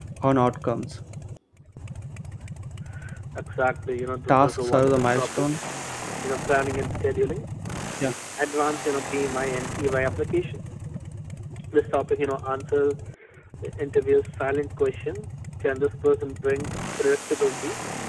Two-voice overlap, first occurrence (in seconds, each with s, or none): 4.3 s